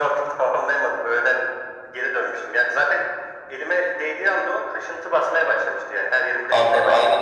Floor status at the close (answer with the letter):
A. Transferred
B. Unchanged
A